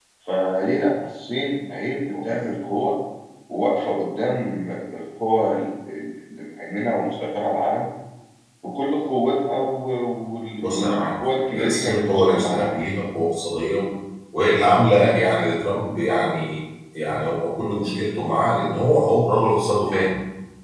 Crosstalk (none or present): present